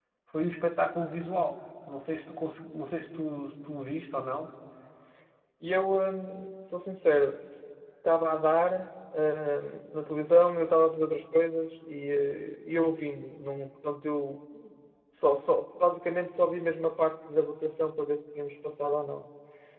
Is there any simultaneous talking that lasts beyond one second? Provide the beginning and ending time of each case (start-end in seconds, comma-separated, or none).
none